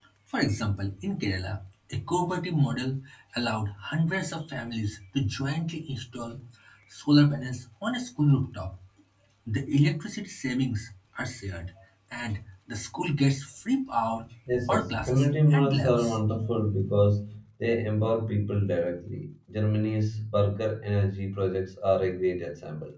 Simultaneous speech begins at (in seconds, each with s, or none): 14.7 s